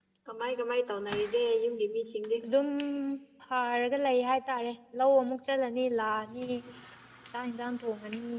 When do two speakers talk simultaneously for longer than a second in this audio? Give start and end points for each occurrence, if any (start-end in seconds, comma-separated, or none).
none